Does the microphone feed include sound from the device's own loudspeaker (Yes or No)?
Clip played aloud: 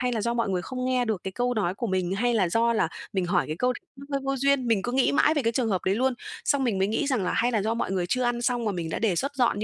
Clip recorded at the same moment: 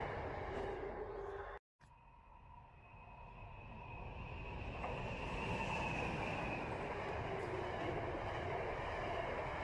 No